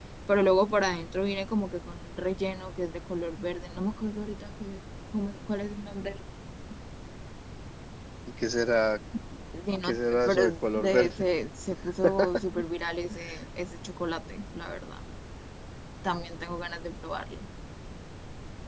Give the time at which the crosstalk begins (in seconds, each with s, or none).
9.8 s